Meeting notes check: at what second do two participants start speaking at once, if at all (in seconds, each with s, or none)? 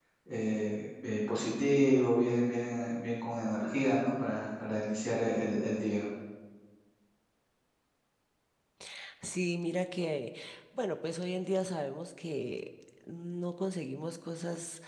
none